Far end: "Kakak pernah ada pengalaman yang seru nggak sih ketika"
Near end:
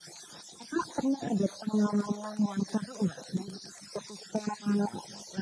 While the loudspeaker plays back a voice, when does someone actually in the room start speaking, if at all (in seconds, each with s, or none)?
none